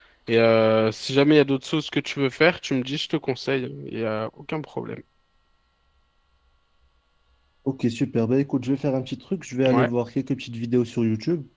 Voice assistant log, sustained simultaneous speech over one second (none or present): none